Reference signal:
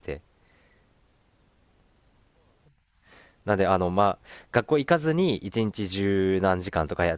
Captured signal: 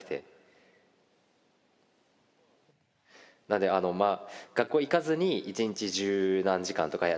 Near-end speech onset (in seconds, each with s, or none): none